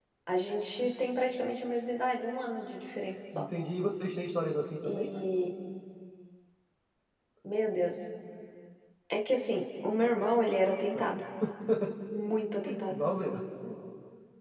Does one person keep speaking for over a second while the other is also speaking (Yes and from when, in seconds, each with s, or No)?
No